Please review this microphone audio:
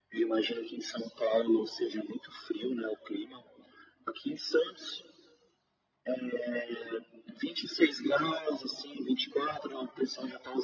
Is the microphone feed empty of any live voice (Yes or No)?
Yes